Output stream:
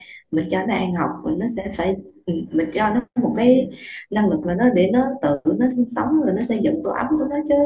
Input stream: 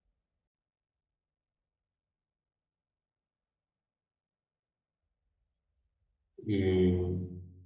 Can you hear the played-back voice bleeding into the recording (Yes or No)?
No